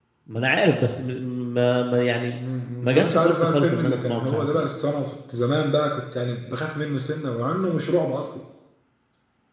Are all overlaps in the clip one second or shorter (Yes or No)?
No